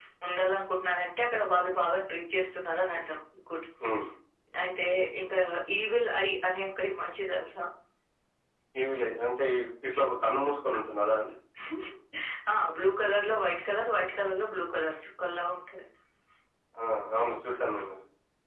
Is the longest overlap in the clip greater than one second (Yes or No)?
No